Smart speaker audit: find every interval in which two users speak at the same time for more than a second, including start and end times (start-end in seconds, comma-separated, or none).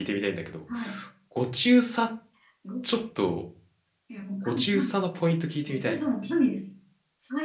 none